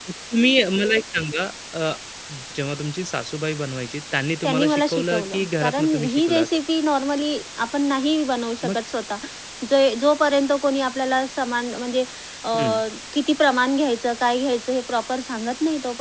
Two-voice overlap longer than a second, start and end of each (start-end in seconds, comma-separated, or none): 4.4-6.5